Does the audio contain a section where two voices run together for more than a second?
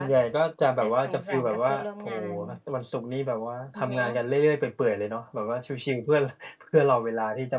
Yes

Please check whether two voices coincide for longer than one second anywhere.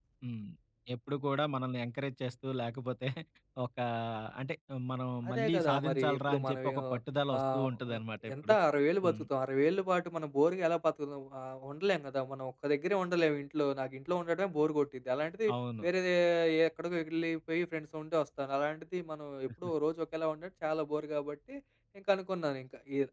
Yes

